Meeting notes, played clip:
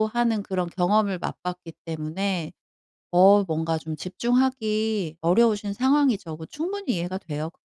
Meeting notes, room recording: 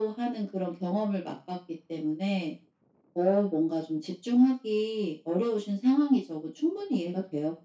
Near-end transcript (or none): none